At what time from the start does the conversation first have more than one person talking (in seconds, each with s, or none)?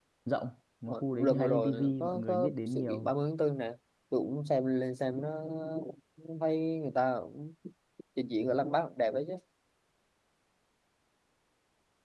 0.9 s